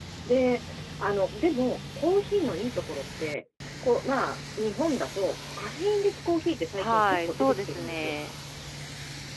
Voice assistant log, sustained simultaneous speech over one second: present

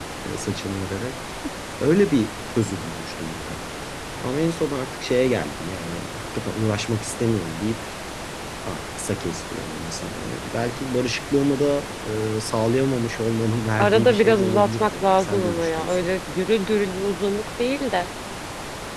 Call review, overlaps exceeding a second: present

